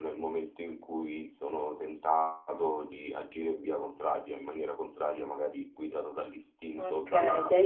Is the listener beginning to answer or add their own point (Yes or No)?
Yes